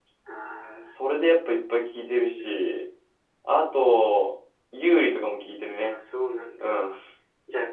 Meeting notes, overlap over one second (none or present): none